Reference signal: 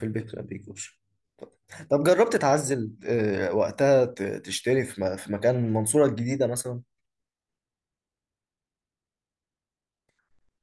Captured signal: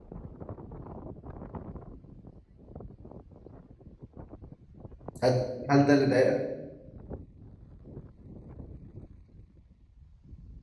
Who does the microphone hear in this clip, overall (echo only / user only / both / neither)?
user only